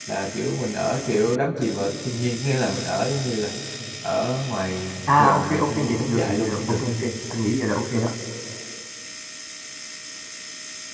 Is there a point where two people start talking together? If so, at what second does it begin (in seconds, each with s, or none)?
5.1 s